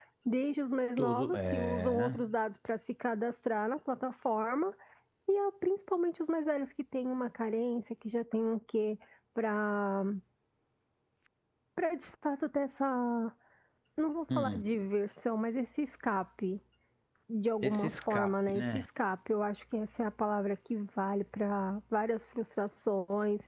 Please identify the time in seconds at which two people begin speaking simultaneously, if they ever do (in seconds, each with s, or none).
1.0 s